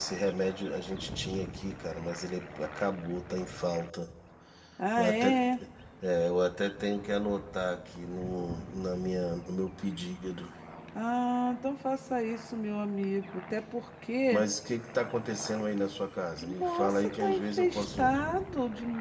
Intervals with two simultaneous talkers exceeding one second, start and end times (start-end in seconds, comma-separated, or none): 16.4-18.0